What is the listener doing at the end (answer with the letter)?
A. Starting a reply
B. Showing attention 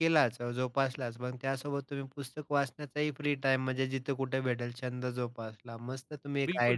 A